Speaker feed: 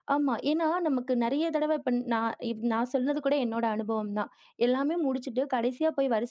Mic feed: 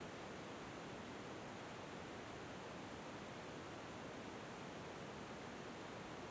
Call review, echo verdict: none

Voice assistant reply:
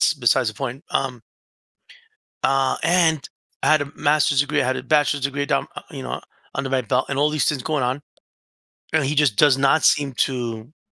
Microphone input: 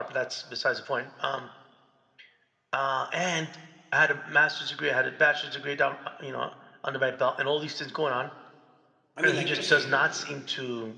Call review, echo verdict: present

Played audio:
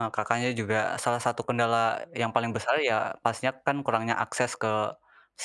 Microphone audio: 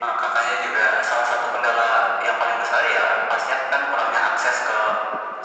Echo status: present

